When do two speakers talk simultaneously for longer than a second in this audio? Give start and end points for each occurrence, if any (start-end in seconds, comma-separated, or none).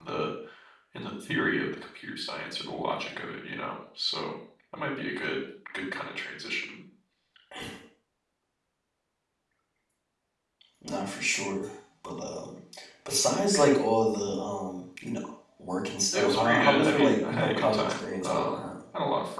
16.1-18.6